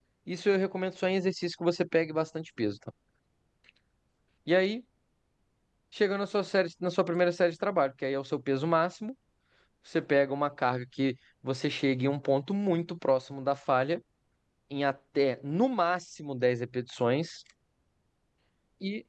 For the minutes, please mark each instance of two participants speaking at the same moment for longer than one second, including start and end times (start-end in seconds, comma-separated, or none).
none